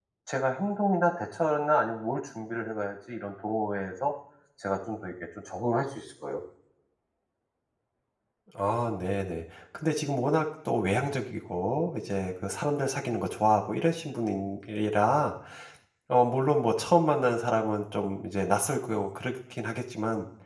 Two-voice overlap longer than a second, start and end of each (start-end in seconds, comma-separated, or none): none